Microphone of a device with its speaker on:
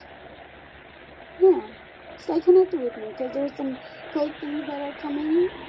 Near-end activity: none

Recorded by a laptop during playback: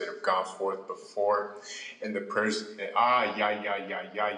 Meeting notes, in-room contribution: none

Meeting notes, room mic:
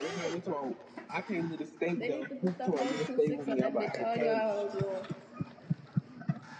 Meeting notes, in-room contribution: present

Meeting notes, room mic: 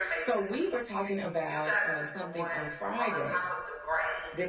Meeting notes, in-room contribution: present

